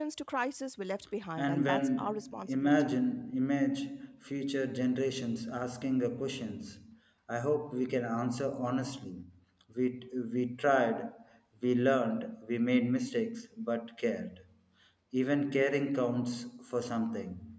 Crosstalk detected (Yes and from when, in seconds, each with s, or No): Yes, from 1.4 s